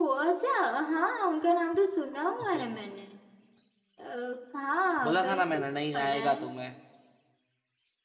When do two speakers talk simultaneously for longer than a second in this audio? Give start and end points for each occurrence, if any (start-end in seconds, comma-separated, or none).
5.0-6.4